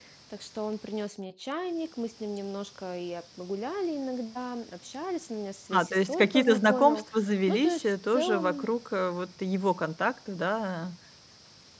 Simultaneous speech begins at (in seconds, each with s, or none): 5.7 s